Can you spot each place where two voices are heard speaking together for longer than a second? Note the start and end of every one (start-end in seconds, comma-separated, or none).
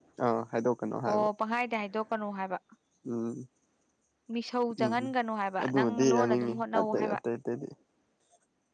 5.6-7.2